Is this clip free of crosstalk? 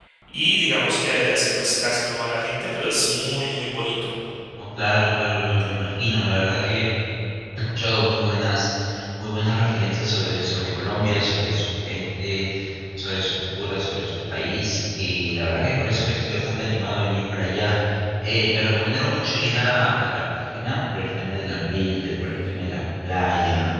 Yes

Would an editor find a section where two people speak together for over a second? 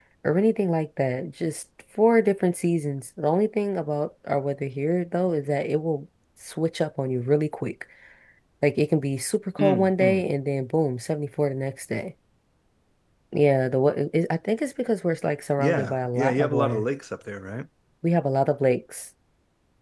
Yes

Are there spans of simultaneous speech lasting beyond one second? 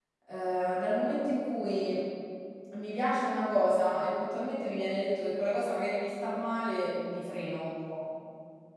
No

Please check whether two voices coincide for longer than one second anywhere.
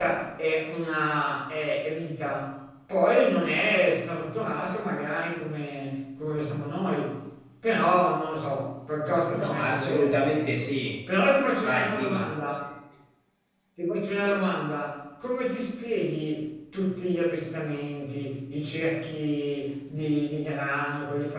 Yes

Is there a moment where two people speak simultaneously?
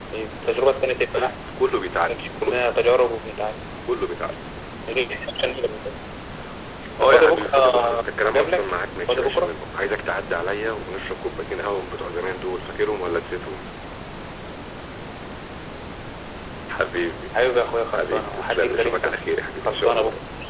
Yes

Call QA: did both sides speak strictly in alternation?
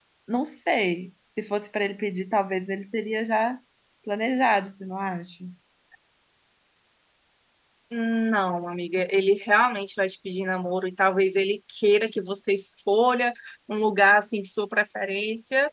Yes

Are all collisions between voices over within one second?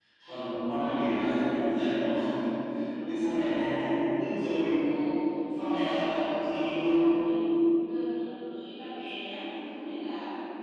No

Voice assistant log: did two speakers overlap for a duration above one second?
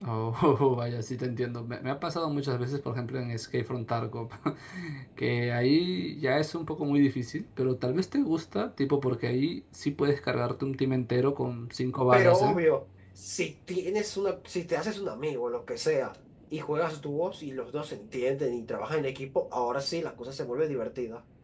No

